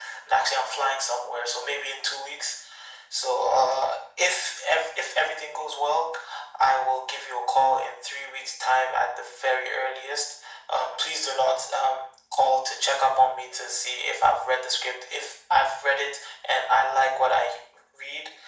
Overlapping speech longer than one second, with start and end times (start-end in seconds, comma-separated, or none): none